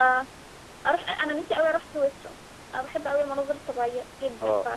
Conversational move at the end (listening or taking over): taking over